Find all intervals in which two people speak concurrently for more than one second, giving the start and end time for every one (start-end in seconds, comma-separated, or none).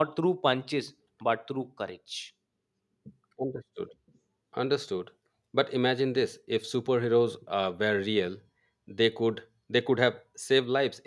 none